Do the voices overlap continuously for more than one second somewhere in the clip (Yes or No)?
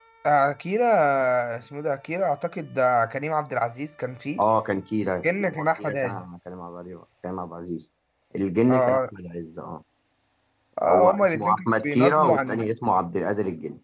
Yes